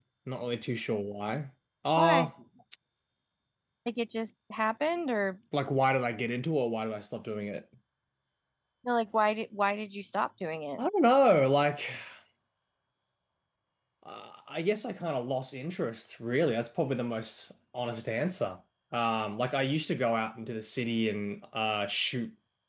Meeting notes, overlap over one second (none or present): none